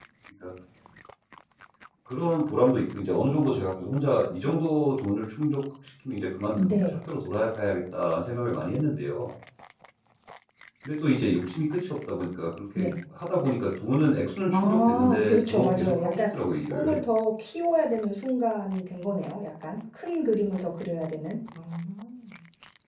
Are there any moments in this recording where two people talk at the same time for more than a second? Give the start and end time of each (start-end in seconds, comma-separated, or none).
14.5-16.2